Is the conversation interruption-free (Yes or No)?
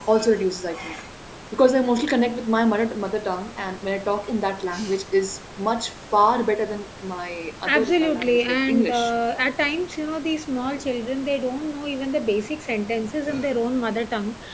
No